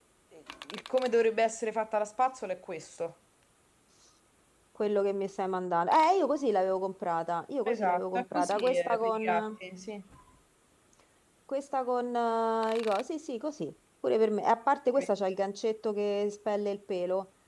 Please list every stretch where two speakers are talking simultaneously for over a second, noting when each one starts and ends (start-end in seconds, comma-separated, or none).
7.7-9.4